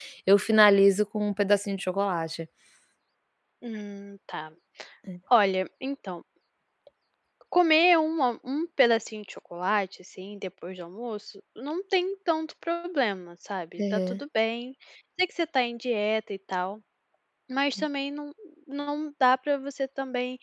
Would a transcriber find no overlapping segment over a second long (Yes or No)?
Yes